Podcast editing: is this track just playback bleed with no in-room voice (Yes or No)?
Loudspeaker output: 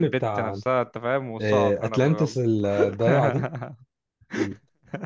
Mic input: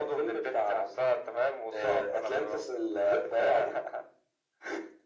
Yes